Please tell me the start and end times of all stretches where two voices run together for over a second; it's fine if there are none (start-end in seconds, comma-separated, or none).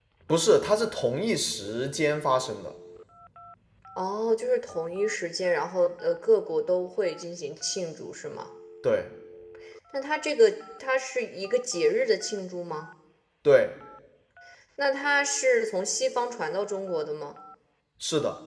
none